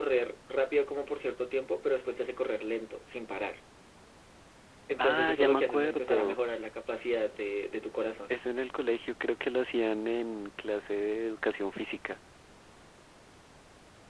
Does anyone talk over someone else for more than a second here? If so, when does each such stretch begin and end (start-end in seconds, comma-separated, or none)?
5.0-6.4